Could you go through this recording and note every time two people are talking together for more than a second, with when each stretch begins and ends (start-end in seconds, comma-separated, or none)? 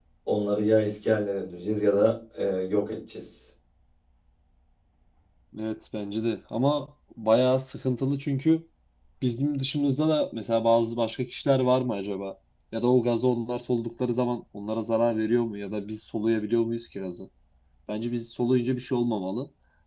none